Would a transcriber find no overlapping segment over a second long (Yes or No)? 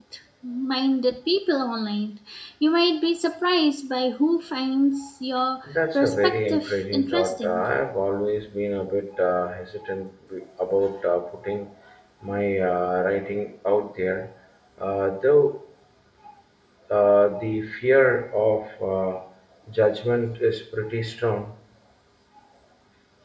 No